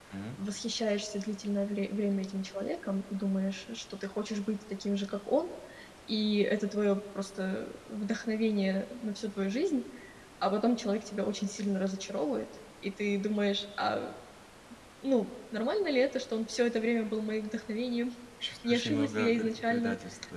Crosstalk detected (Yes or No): Yes